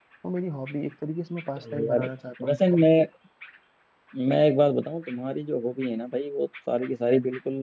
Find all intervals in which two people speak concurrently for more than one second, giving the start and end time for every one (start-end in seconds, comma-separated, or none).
none